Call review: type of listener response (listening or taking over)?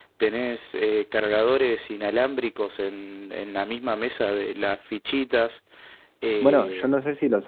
taking over